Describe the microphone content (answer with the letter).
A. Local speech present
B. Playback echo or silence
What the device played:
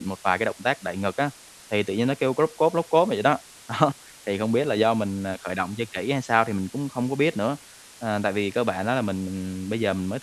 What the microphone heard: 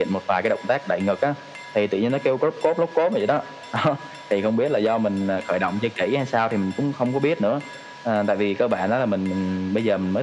B